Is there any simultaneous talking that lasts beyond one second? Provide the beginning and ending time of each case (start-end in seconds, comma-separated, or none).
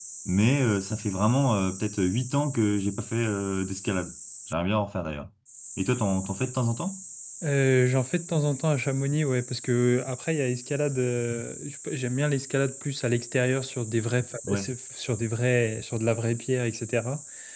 none